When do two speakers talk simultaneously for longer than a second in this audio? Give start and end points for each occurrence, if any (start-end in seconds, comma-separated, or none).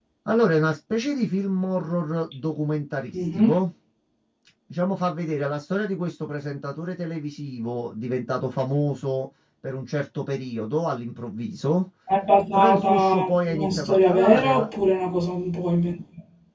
12.5-14.7